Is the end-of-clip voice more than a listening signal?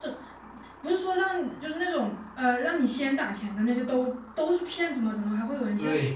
Yes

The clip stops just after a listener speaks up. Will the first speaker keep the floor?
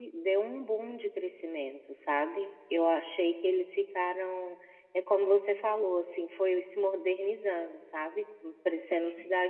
Yes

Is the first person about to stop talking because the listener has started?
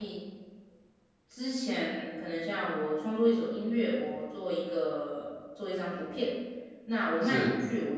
No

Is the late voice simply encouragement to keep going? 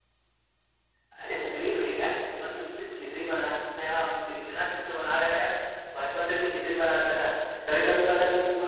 Yes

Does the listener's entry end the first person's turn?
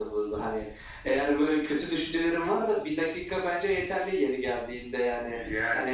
Yes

